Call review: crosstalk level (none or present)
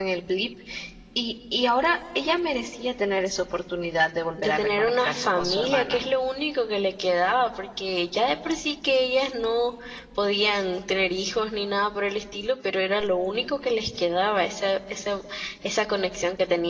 present